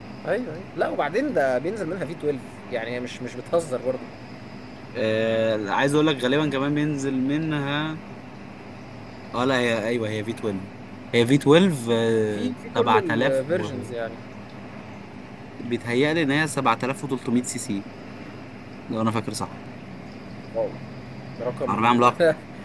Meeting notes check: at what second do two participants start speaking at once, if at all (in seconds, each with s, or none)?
12.3 s